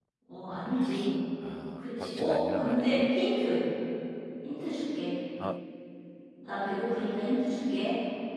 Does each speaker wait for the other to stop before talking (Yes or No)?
No